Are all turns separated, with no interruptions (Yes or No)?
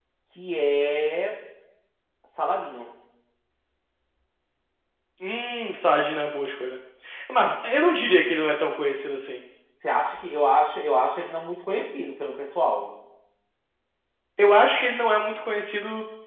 Yes